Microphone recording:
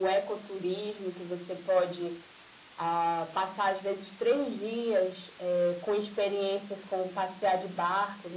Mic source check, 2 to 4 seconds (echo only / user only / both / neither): echo only